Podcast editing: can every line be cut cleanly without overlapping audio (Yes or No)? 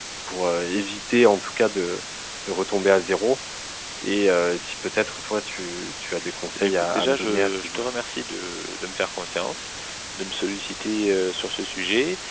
No